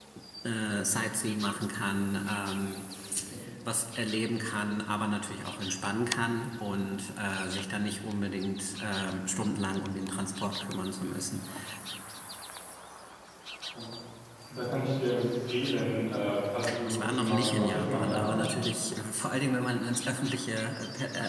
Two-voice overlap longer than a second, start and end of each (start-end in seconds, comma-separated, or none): 16.9-18.5